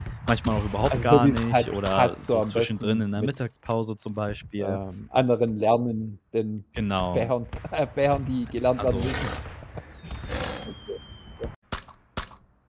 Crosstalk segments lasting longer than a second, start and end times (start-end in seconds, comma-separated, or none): 0.9-3.3